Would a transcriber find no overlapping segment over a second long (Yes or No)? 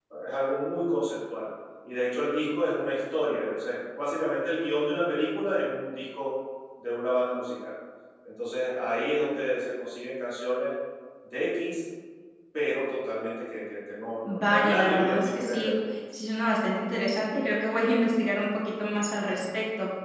No